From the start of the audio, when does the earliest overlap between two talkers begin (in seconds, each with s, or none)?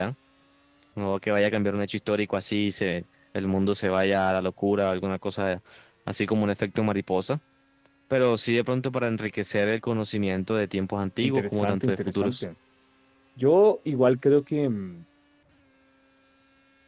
11.2 s